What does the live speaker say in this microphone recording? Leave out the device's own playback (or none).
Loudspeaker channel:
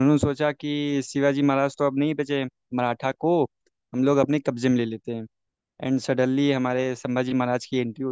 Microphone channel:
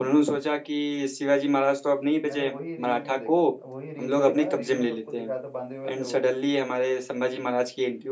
मैंने वही रील में देखा वही रील में देखा ना रील में सबको दिखाया था बांधे हुए थे वो